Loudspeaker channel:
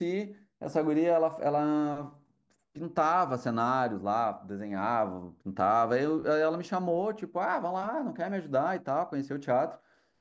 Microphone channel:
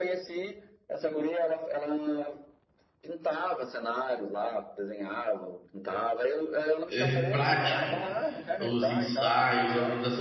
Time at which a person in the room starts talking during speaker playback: 7 s

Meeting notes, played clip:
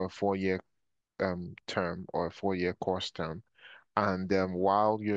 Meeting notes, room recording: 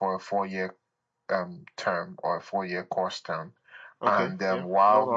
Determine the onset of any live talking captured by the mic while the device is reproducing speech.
4 s

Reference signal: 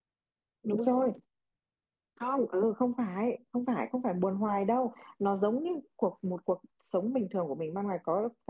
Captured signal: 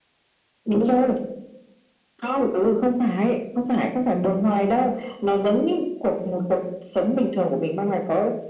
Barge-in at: none

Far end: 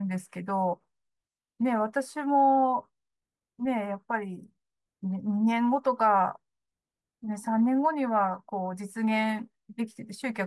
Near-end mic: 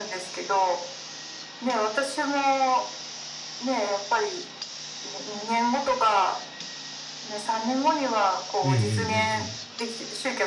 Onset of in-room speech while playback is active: 9 s

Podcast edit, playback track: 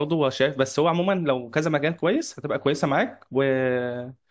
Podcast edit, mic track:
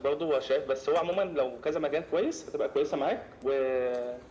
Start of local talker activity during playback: none

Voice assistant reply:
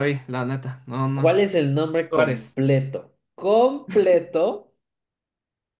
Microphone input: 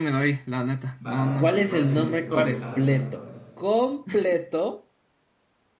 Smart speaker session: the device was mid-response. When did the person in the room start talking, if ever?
1 s

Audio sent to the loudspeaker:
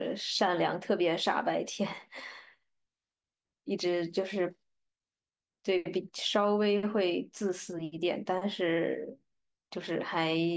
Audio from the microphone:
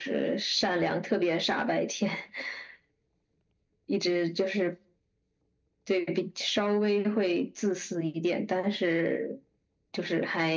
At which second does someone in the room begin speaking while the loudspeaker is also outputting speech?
none

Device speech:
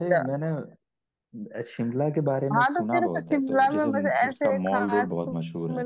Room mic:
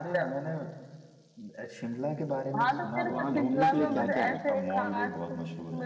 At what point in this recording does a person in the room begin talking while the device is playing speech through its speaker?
3 s

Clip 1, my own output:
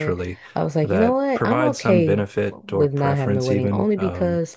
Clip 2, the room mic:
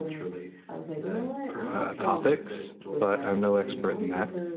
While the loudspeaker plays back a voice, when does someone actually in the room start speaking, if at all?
2 s

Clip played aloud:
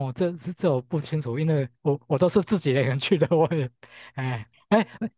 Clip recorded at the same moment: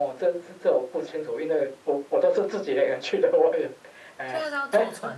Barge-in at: 4 s

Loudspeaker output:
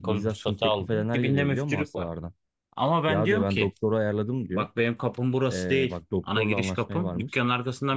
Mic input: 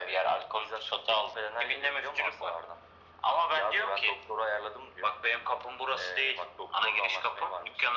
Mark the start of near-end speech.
none

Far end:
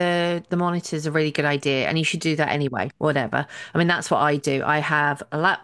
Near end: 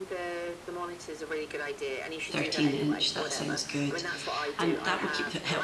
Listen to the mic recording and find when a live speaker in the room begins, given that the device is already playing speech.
2 s

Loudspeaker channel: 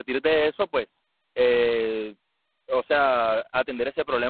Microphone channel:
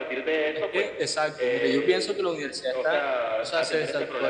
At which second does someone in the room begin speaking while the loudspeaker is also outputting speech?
1 s

